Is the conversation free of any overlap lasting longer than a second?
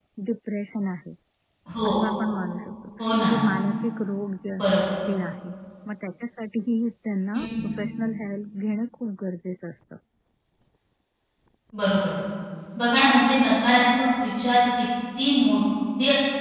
Yes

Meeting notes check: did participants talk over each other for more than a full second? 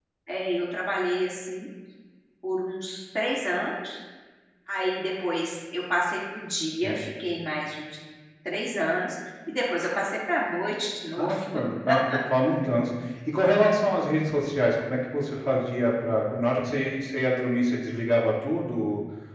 No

